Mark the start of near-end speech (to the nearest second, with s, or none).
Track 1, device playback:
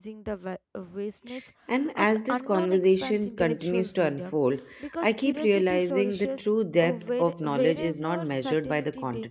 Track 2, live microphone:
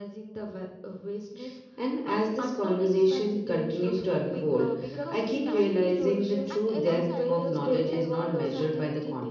4 s